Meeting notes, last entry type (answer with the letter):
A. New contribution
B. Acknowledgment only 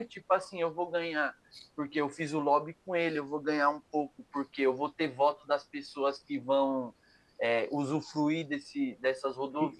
A